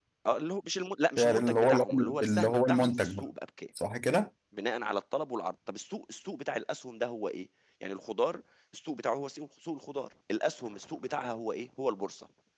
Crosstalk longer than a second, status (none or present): present